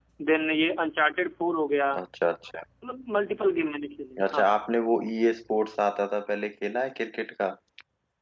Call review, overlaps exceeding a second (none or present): none